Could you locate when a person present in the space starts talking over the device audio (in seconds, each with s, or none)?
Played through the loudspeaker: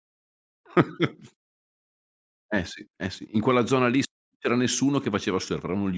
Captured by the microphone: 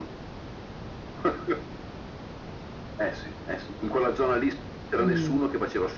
5.0 s